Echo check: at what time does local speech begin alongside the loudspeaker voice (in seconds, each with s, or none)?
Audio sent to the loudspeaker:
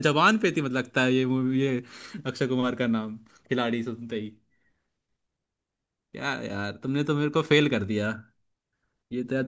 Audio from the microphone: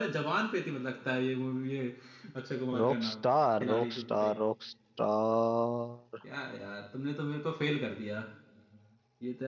2.8 s